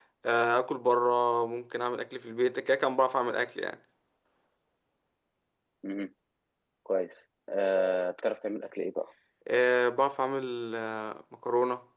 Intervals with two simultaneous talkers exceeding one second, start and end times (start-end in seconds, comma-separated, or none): none